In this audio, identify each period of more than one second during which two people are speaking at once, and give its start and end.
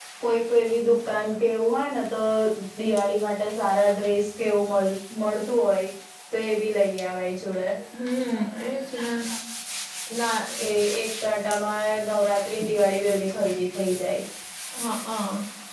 none

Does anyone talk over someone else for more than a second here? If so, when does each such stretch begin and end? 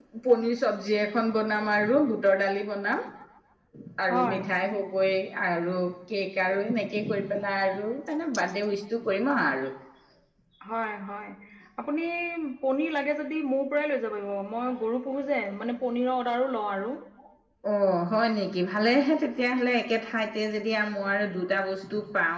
none

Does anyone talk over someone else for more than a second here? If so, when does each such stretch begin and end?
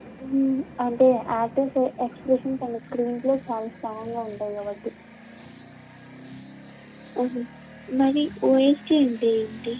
none

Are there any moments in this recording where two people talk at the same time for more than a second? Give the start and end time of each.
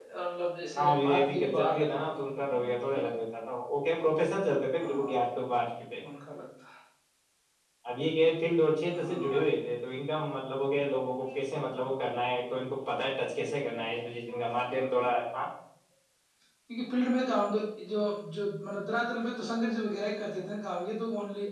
0.8-2.0

